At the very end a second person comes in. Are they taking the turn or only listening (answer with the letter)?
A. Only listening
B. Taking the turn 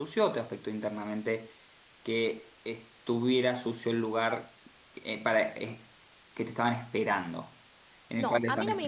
B